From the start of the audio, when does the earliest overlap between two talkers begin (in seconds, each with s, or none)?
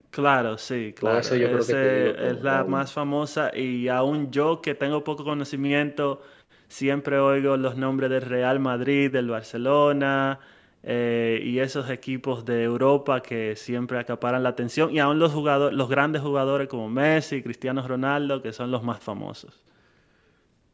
1.0 s